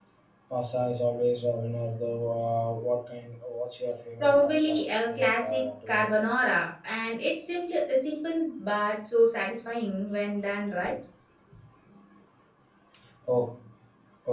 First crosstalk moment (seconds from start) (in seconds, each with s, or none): 4.2 s